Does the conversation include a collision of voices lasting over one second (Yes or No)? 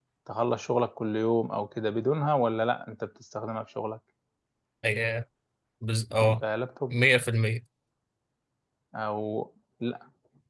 No